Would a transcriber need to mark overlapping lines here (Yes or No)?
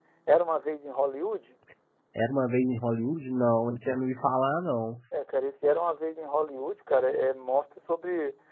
No